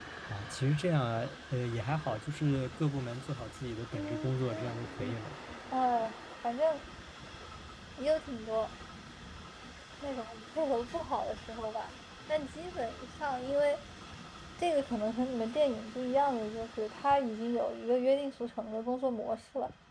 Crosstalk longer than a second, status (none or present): present